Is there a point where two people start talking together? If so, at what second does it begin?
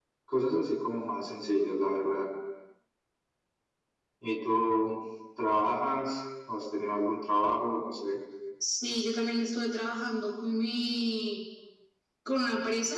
none

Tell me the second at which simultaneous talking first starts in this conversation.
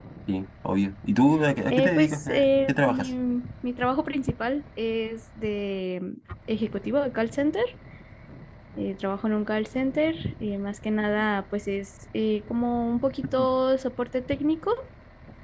1.7 s

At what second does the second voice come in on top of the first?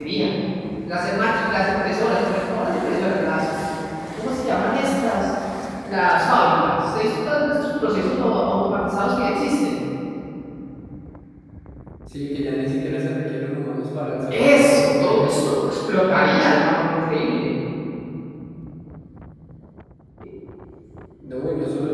14.3 s

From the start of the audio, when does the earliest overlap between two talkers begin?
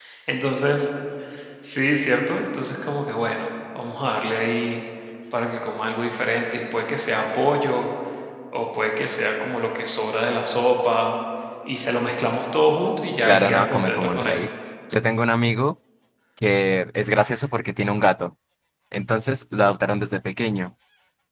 13.2 s

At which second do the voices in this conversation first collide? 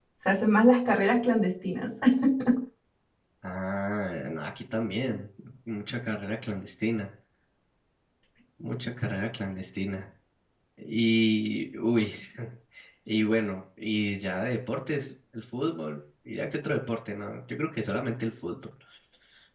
none

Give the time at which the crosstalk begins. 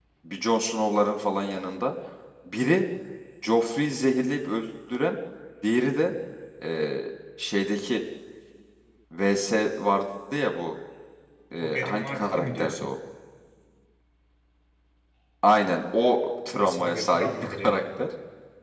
11.6 s

